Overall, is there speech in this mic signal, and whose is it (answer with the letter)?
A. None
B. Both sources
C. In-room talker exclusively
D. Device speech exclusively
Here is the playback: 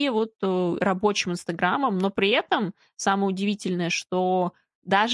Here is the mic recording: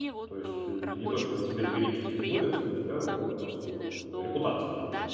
B